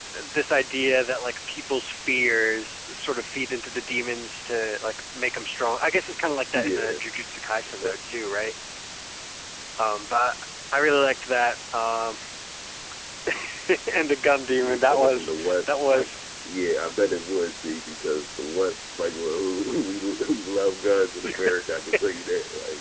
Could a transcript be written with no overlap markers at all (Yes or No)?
No